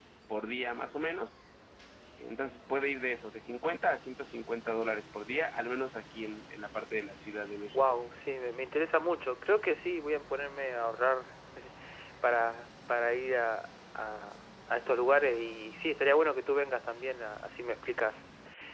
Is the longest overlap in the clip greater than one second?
No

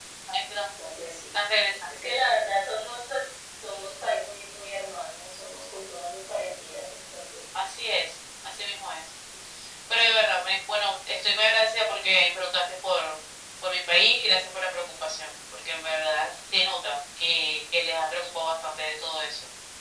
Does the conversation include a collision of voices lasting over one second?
No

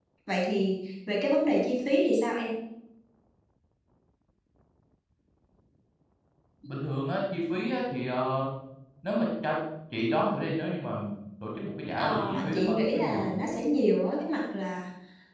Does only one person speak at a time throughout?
No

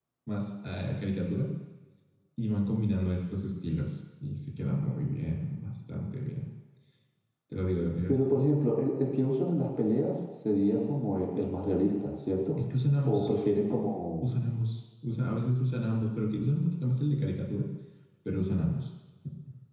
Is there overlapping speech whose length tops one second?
No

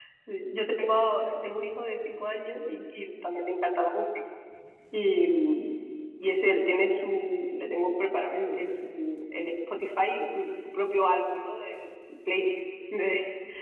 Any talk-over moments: No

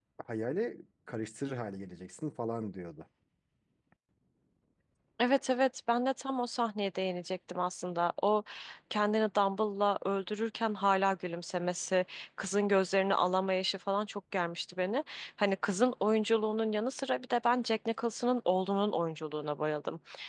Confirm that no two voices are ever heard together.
Yes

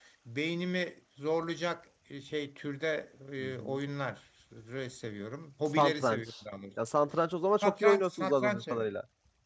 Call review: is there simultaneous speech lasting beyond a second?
Yes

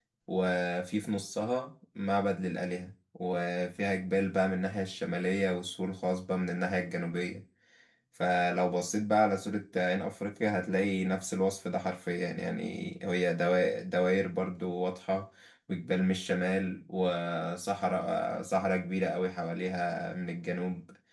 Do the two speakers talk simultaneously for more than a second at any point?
No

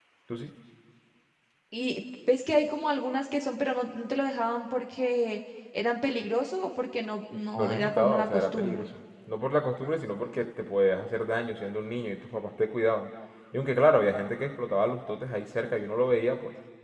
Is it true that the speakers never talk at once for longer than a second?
No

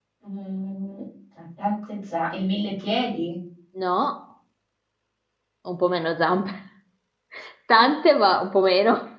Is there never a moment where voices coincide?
Yes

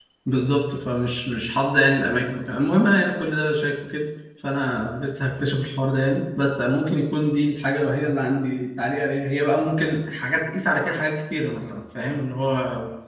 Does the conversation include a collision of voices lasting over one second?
No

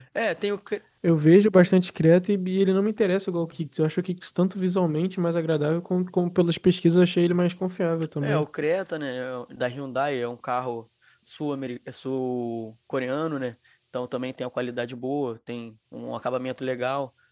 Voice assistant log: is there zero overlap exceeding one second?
Yes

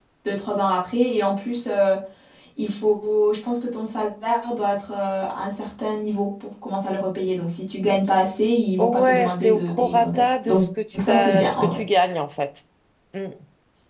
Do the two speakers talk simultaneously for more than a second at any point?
Yes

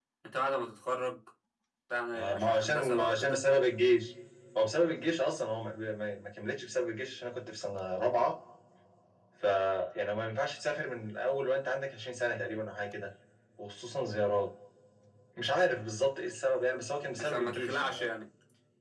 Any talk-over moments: Yes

